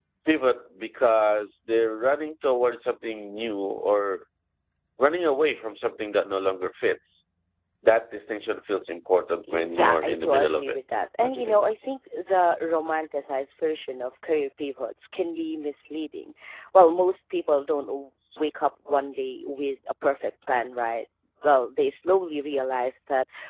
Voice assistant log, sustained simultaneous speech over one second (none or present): present